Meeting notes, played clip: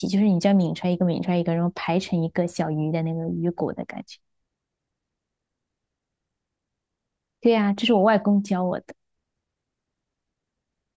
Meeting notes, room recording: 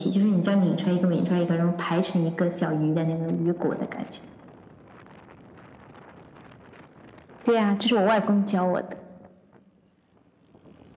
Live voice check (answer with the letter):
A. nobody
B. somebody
A